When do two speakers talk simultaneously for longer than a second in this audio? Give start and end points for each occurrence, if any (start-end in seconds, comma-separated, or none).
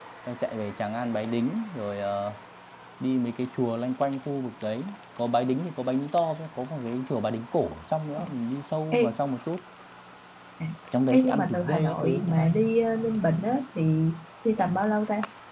11.1-12.5